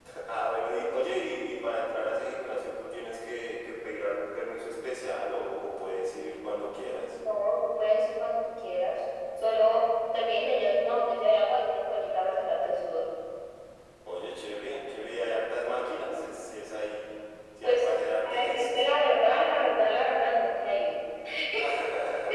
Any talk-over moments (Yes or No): Yes